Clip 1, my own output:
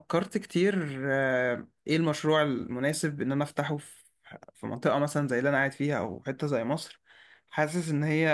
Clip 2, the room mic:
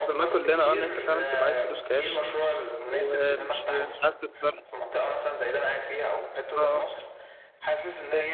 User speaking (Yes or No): Yes